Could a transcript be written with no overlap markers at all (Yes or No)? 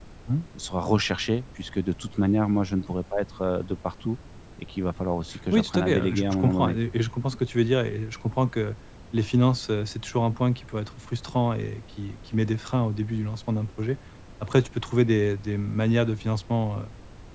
No